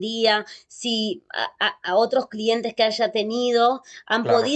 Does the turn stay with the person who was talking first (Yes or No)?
Yes